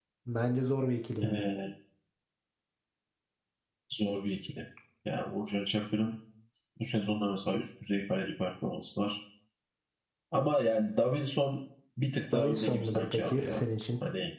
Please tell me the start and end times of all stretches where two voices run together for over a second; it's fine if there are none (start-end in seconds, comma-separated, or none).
12.3-13.6